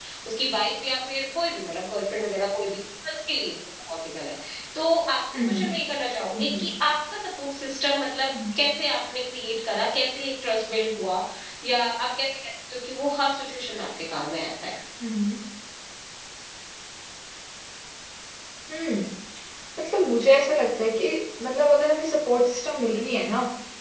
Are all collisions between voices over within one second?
Yes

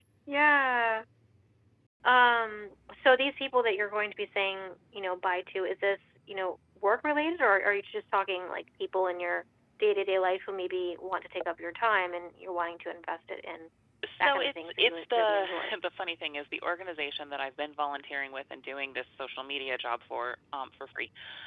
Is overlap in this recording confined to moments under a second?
No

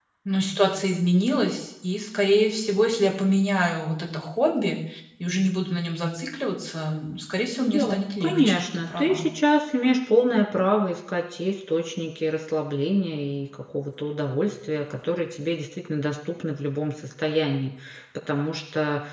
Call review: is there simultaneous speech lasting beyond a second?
Yes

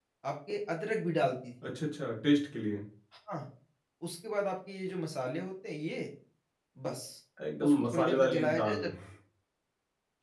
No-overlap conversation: No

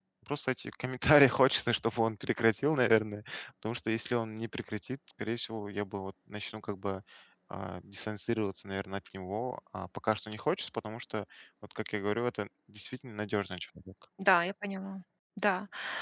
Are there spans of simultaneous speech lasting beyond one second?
No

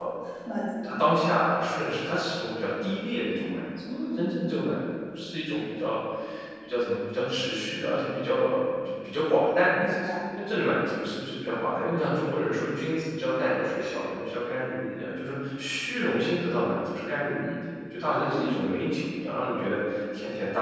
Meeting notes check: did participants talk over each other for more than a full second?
No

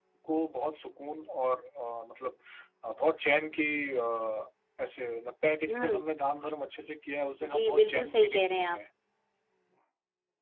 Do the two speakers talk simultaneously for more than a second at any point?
Yes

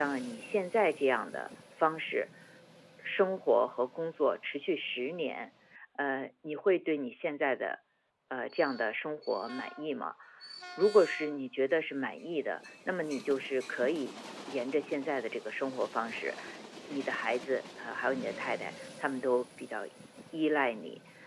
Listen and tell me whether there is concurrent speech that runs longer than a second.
No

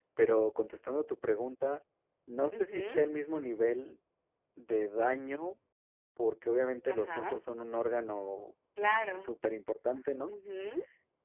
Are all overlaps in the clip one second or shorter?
Yes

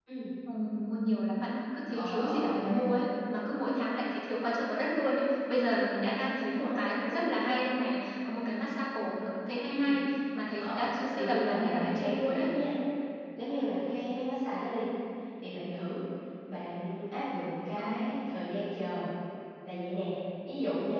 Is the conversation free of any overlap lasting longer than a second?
No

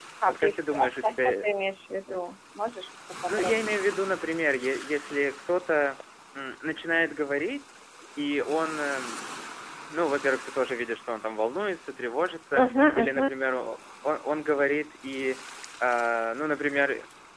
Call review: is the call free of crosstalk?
No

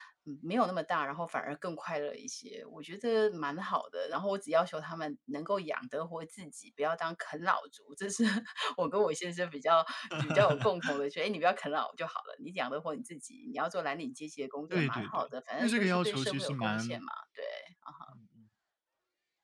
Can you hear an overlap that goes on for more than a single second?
Yes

